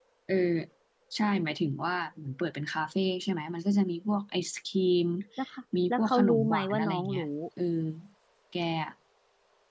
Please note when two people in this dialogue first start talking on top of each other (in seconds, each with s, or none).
5.9 s